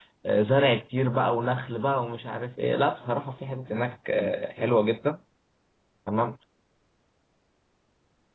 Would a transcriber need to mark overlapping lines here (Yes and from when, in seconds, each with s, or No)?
No